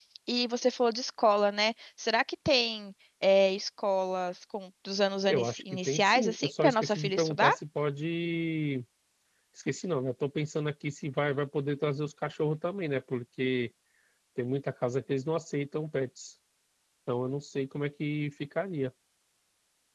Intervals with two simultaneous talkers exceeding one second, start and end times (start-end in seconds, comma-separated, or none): 5.3-7.5